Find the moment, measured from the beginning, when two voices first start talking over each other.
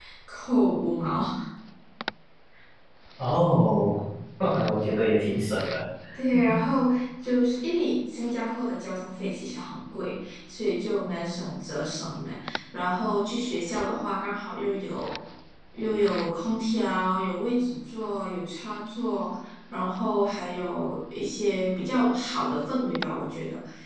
none

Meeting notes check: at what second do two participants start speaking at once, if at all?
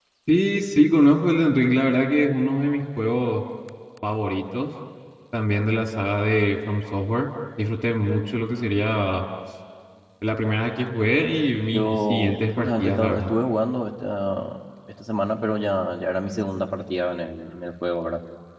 11.7 s

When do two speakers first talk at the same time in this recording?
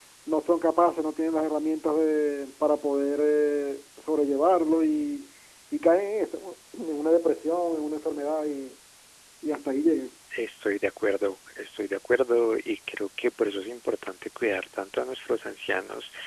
none

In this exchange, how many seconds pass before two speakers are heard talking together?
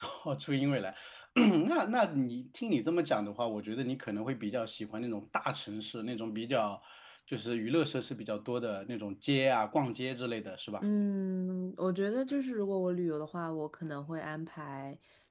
none

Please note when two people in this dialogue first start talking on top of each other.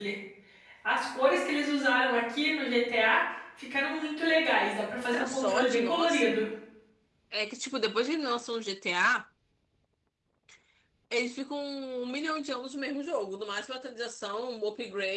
5.1 s

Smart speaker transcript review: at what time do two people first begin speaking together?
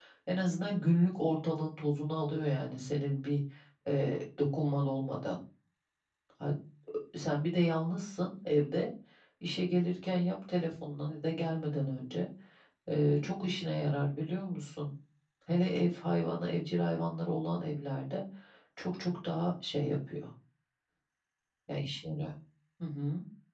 none

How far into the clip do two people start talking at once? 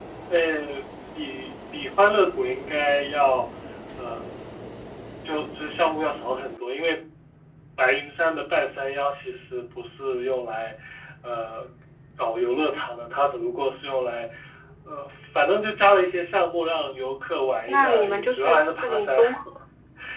17.7 s

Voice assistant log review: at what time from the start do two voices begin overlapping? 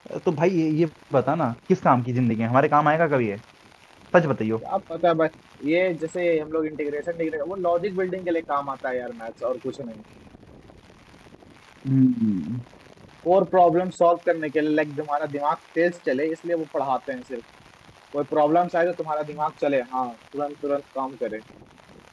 none

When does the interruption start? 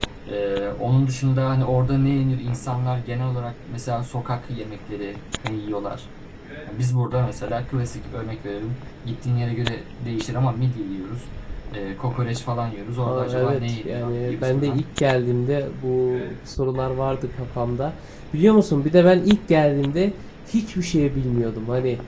13.0 s

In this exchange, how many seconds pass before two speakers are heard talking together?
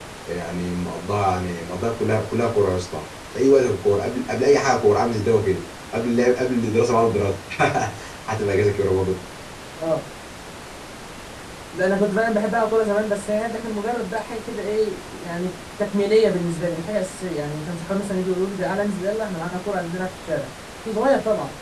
none

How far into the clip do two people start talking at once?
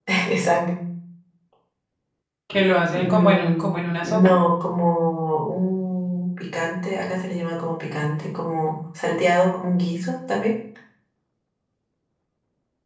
3.0 s

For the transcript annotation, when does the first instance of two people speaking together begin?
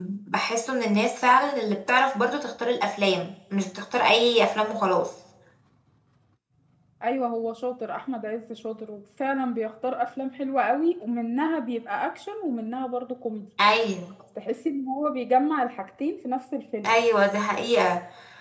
none

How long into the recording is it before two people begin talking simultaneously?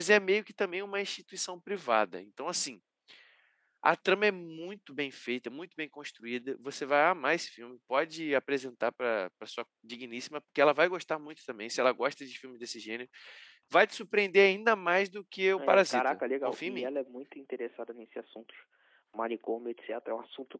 15.6 s

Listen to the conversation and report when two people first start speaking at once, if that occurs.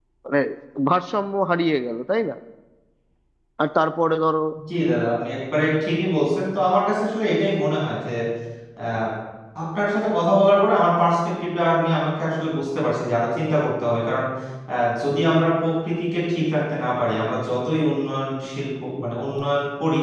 none

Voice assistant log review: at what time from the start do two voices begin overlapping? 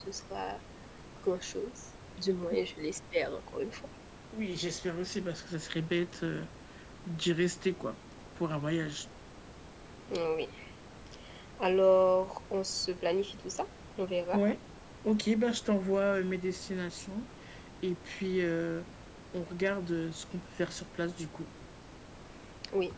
none

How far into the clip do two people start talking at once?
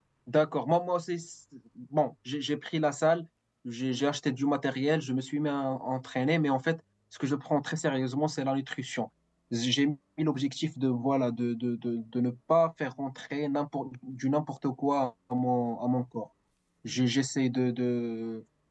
none

